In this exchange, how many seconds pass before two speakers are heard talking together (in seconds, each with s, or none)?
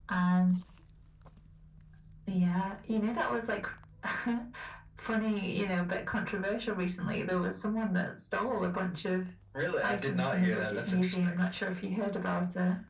9.8 s